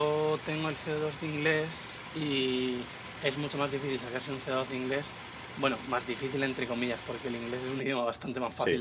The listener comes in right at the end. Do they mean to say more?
No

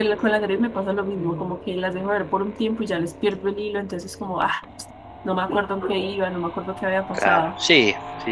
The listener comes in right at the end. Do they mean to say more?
Yes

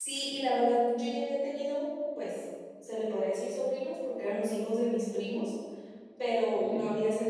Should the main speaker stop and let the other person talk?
No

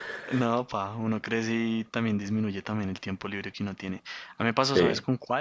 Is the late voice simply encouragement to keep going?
Yes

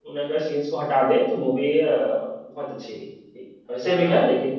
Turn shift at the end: No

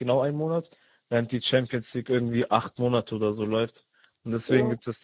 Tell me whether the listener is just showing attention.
Yes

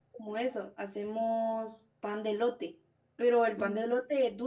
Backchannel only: Yes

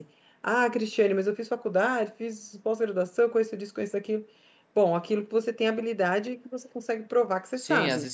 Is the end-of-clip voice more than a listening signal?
Yes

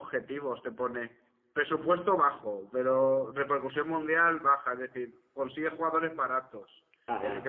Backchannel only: Yes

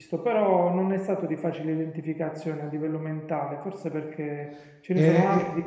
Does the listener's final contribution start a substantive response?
No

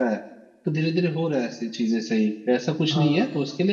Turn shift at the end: No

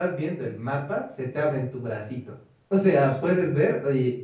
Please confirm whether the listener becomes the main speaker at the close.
No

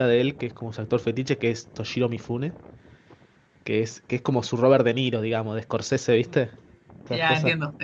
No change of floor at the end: No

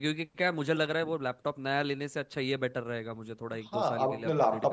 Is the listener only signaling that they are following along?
No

